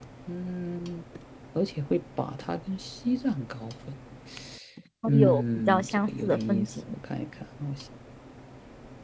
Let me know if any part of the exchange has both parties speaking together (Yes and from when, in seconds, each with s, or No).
Yes, from 5.1 s